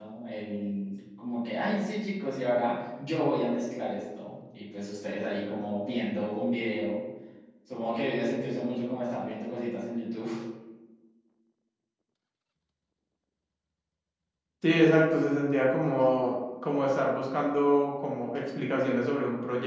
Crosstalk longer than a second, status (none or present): none